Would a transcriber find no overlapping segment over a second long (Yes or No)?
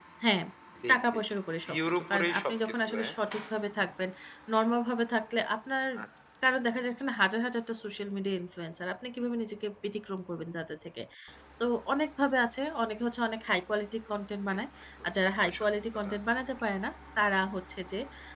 No